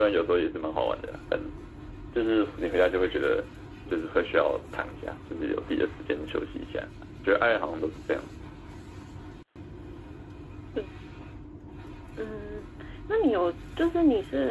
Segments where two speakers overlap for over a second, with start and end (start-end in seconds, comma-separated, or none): none